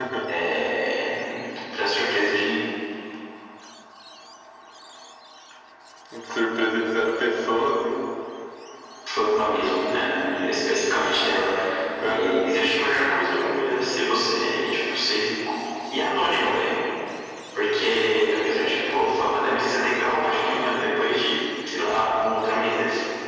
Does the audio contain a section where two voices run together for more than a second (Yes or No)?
No